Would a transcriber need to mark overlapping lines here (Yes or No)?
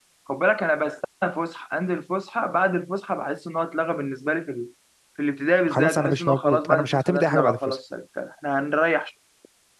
Yes